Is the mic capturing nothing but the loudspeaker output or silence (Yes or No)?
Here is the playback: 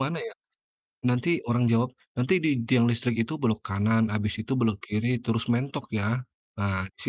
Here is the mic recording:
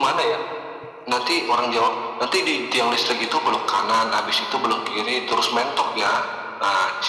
Yes